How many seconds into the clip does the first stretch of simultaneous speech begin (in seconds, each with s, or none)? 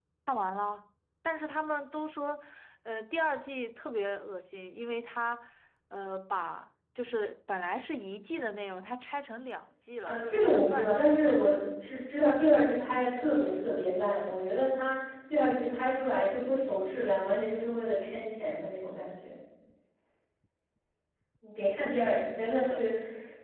10.1 s